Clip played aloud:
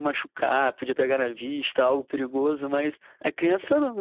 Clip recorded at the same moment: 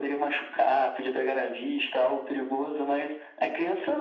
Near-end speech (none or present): none